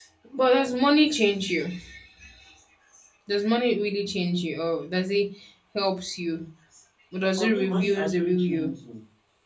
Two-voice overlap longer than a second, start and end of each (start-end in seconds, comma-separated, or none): 7.4-8.7